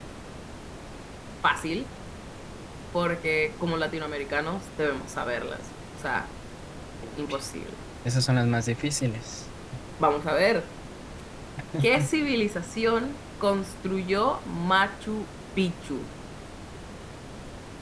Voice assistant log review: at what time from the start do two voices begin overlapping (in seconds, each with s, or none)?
none